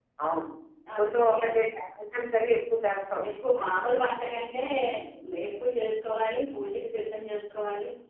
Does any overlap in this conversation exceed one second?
No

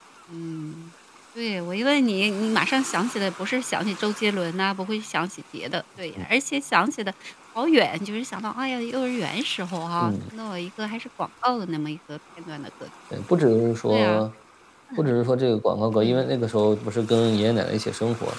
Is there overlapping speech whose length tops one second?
No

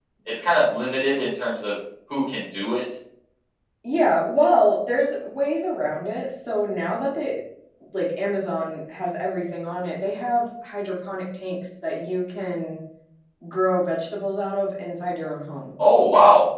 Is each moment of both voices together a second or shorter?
Yes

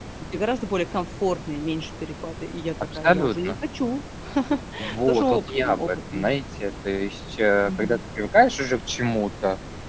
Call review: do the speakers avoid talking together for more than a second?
No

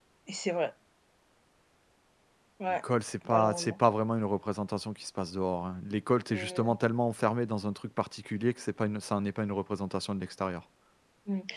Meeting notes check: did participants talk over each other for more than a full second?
No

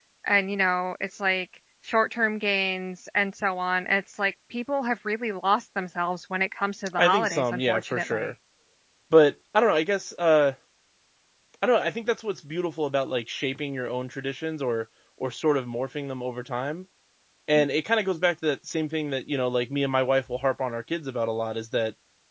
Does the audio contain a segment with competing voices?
Yes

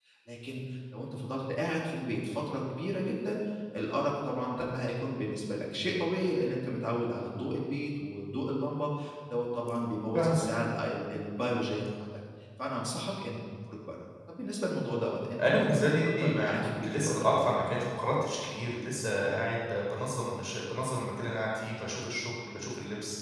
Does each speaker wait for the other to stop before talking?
No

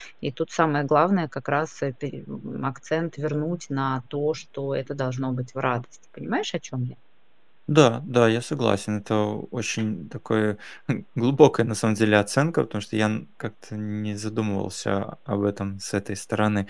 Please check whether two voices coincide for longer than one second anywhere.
No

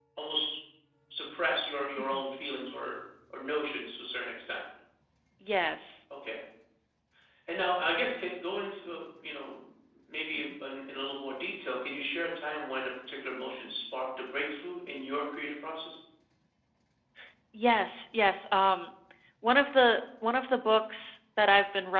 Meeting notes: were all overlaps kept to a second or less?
Yes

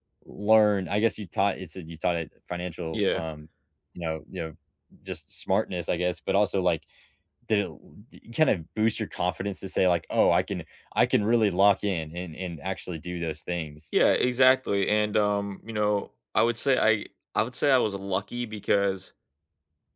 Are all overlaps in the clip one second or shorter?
Yes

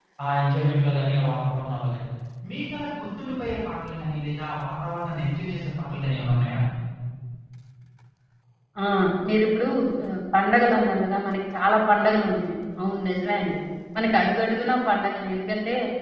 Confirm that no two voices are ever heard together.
Yes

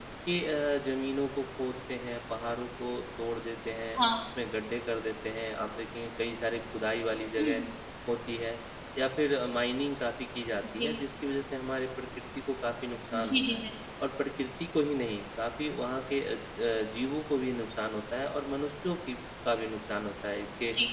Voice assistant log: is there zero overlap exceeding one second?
Yes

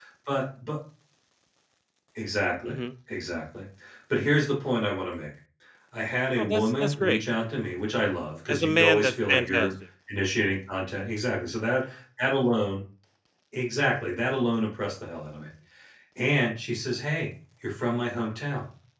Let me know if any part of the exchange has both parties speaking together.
Yes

